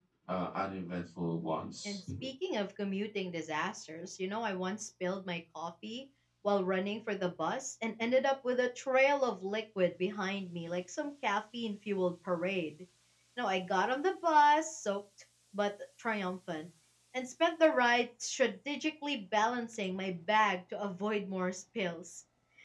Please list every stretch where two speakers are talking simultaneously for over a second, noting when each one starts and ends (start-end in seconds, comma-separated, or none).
none